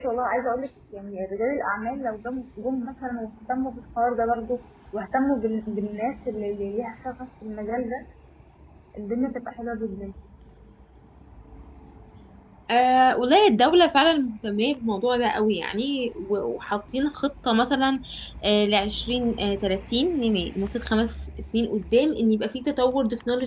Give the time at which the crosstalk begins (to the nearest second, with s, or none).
none